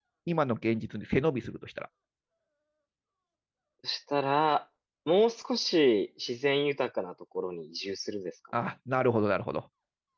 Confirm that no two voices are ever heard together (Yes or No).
Yes